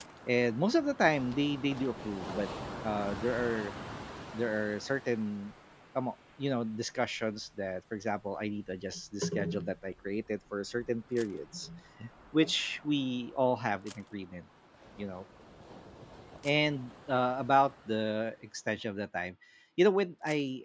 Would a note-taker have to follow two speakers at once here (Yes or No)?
No